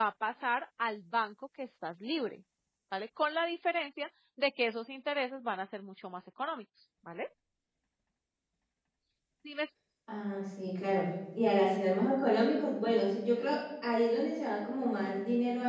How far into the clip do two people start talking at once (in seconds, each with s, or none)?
none